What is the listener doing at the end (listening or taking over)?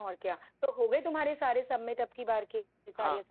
taking over